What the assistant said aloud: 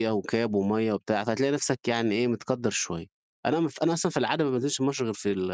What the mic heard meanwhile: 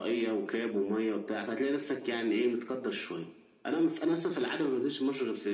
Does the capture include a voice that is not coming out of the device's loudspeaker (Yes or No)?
No